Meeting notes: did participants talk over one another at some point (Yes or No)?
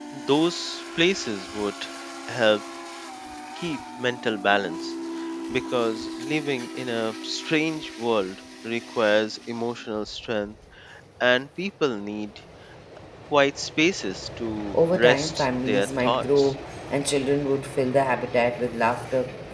Yes